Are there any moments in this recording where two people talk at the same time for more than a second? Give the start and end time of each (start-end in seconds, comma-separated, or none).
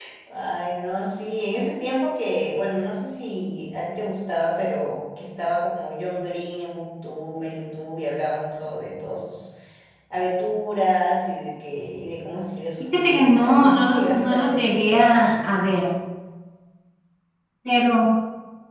12.8-15.5